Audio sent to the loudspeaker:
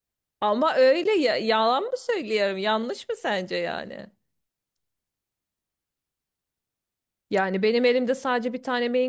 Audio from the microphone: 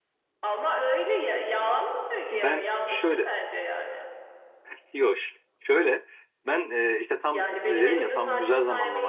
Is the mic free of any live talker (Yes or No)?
No